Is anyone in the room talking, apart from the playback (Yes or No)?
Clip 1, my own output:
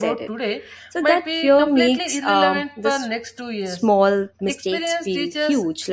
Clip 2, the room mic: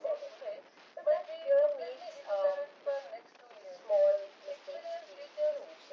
No